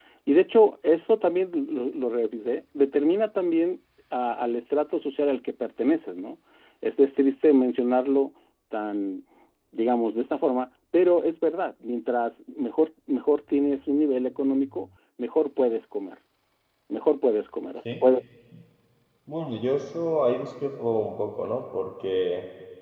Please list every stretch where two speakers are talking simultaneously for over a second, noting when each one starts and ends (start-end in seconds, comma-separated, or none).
none